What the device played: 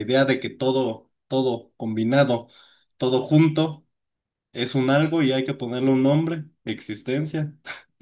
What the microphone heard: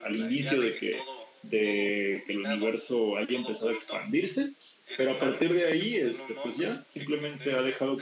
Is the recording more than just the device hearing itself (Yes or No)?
Yes